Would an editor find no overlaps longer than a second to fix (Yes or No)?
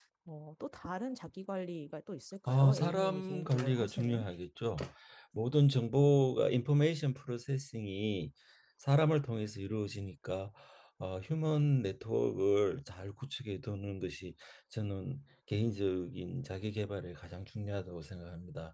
No